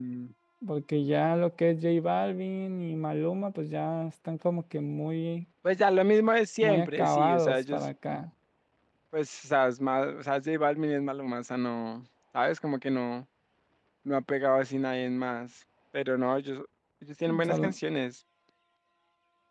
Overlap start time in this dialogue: 6.6 s

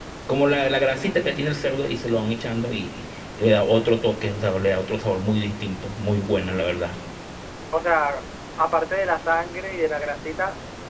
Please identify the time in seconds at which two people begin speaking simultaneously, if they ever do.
none

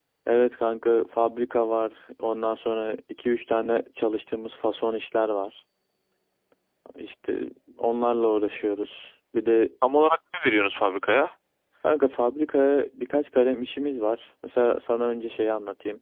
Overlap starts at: none

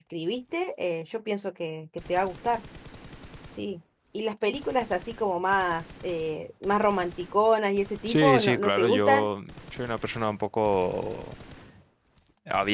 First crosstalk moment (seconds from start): 8.0 s

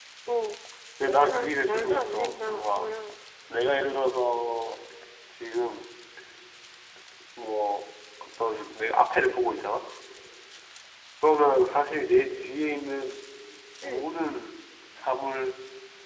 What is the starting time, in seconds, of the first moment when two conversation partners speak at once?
1.1 s

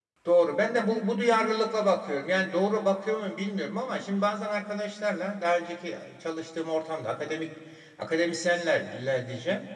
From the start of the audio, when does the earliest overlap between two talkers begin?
none

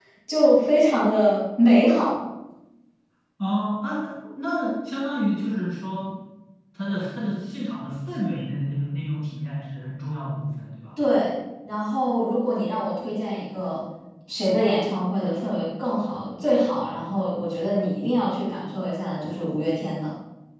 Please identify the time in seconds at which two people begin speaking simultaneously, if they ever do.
none

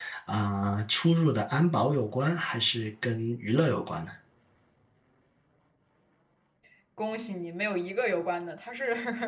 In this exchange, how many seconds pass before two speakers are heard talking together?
none

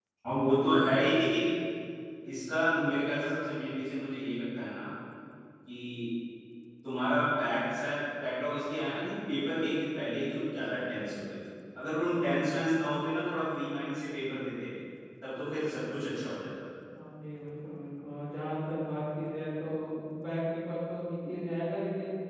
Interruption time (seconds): none

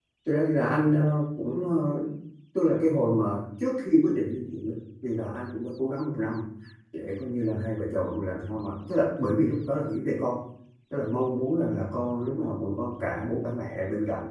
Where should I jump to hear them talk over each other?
none

